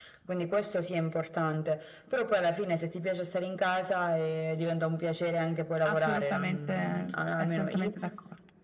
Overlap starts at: 5.8 s

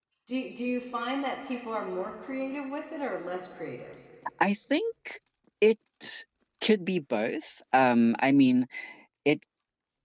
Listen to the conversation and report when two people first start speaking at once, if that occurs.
none

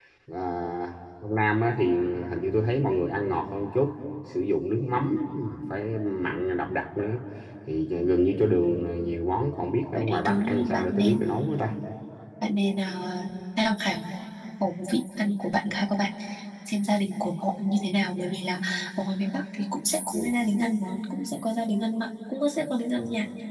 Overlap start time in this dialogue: 9.9 s

